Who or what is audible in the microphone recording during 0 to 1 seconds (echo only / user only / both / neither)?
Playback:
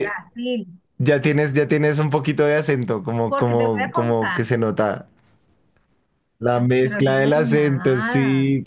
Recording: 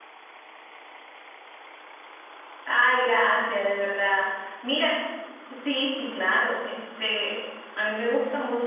neither